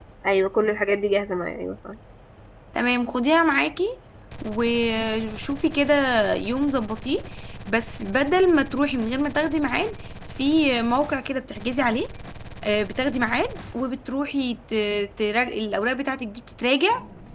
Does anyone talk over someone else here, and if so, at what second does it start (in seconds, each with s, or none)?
none